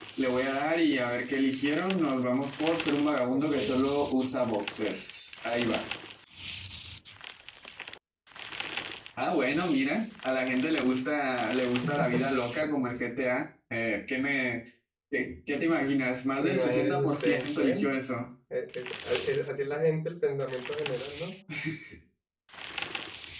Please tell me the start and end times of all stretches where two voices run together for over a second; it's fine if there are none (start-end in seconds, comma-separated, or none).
16.4-17.9